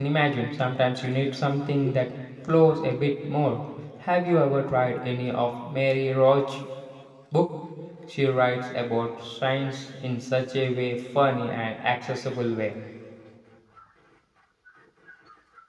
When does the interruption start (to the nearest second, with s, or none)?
none